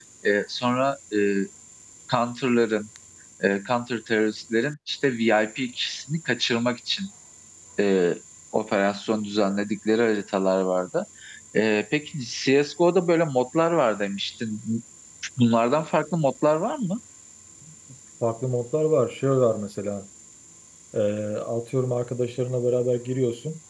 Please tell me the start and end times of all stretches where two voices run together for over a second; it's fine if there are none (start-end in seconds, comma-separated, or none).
none